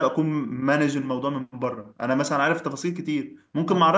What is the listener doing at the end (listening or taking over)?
listening